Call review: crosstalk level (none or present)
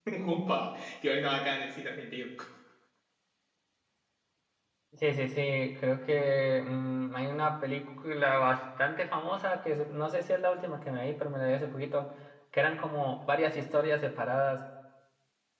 none